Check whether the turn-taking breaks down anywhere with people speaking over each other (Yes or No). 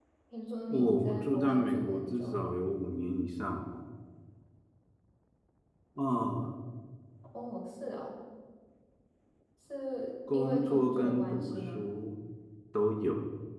Yes